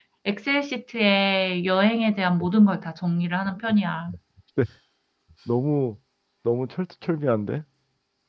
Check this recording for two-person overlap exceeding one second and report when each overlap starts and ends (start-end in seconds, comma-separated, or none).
none